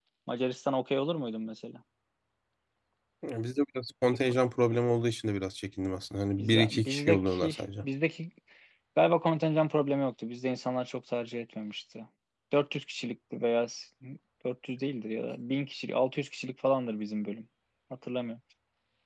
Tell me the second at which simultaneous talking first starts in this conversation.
6.4 s

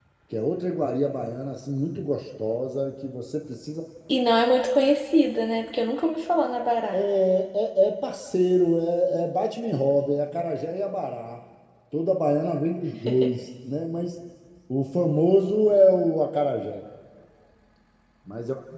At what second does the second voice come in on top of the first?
none

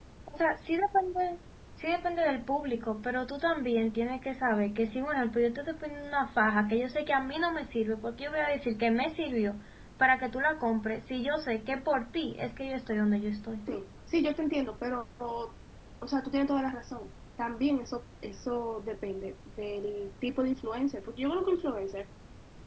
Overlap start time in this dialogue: none

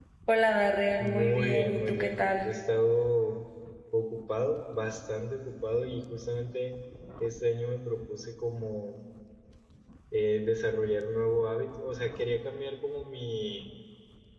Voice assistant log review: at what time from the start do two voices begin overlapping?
1.0 s

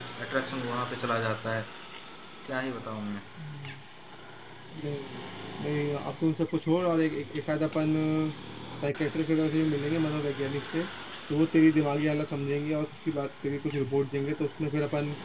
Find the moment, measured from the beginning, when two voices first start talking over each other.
none

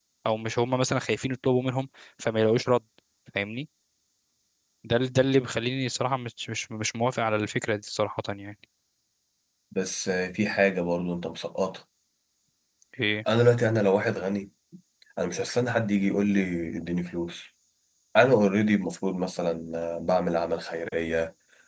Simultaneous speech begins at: none

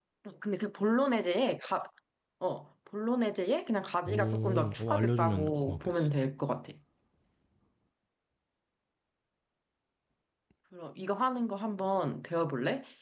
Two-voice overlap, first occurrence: 4.0 s

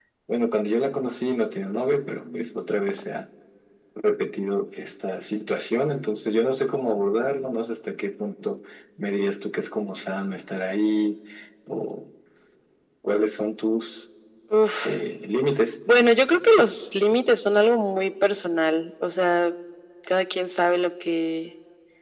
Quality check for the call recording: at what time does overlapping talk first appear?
none

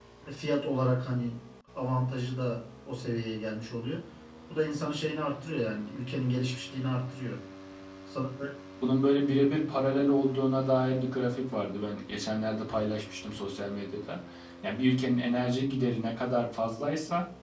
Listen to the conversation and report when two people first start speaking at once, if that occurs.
none

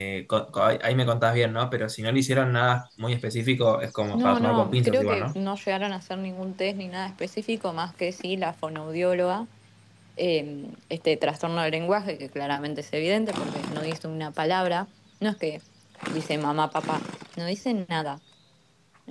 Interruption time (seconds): 4.1 s

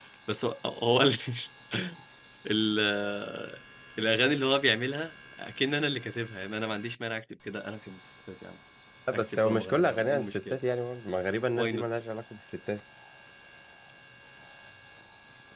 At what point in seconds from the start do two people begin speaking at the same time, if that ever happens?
9.1 s

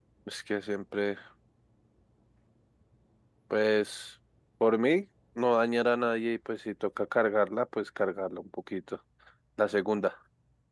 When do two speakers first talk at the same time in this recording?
none

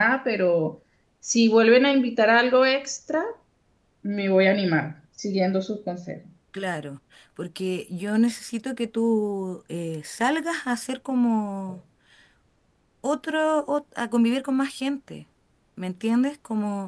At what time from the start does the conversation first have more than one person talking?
none

